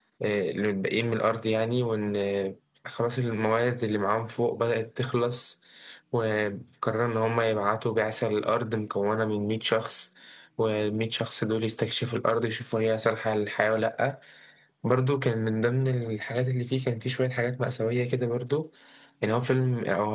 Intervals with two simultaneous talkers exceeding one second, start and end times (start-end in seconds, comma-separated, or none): none